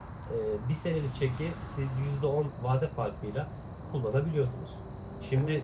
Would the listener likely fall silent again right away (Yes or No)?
Yes